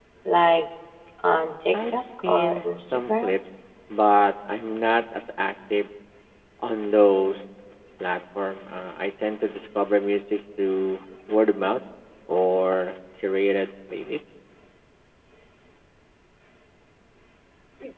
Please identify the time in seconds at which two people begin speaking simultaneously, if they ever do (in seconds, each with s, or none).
1.7 s